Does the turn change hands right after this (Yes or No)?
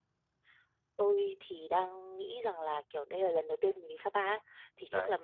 No